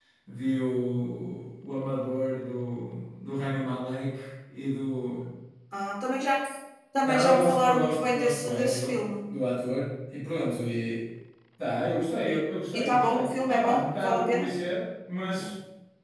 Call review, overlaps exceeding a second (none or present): present